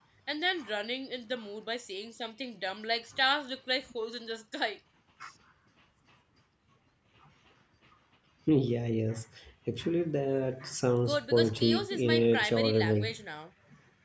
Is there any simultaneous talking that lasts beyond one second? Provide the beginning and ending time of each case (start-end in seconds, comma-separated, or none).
11.1-13.1